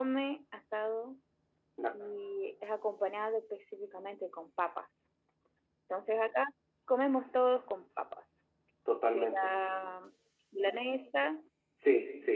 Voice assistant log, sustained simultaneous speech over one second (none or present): none